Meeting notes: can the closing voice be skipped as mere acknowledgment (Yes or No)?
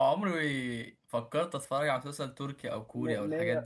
No